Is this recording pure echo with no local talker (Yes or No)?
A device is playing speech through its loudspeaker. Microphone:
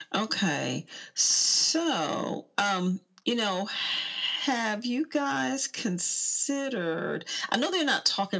Yes